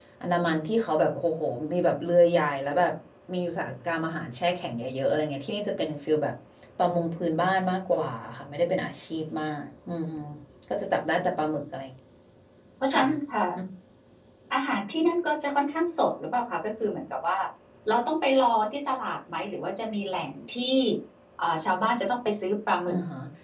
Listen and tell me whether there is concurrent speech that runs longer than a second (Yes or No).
No